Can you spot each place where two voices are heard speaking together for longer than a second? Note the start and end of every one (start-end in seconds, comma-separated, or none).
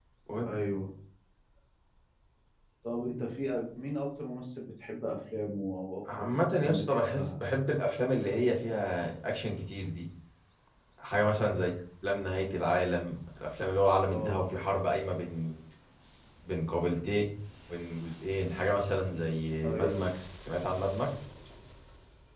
6.2-7.4